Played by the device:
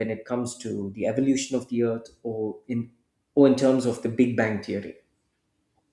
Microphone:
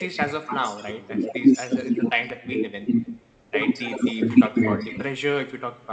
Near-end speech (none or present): present